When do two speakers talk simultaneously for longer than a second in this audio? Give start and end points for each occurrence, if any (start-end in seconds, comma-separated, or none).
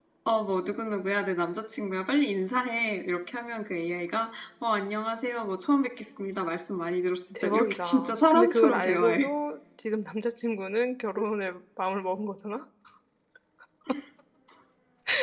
7.4-9.3